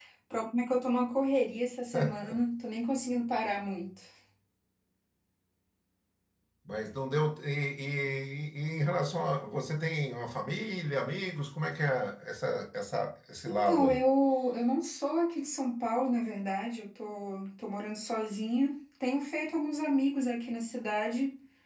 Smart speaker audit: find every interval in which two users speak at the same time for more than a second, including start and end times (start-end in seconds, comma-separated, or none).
none